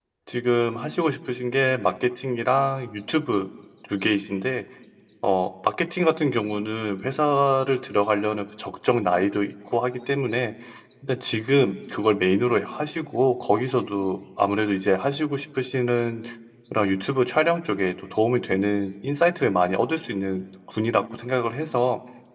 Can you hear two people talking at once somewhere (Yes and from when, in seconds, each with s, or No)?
No